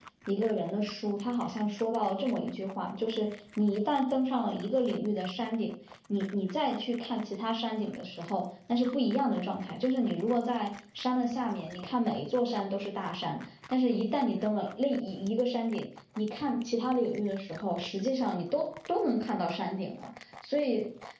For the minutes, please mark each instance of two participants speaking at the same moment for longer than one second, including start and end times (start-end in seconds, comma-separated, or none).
none